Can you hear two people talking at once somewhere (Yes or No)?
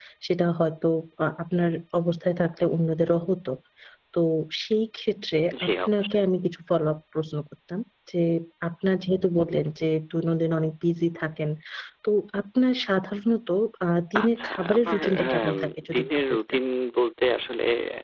Yes